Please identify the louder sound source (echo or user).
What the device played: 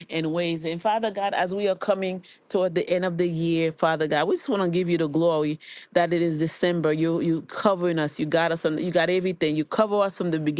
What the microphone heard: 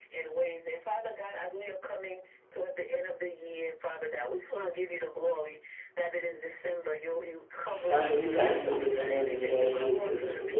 user